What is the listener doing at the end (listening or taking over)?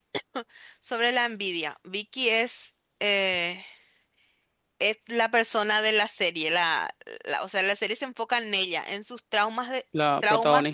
listening